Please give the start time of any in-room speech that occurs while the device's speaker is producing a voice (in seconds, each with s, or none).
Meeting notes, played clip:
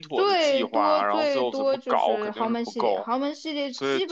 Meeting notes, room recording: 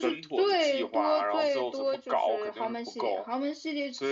none